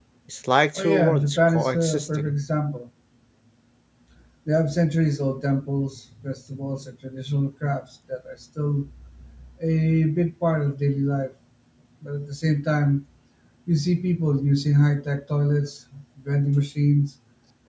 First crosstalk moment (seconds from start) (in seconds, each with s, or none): 0.8 s